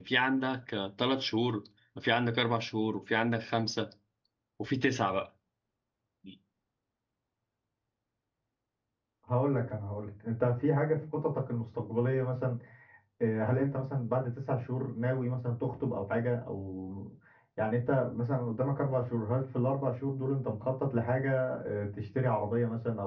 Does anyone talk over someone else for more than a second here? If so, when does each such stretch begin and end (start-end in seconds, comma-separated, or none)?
none